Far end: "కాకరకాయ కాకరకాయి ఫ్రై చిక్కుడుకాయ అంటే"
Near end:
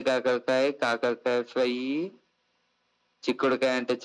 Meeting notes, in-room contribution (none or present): none